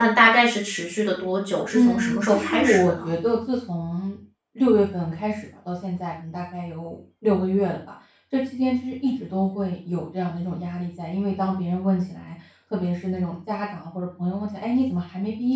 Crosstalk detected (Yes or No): Yes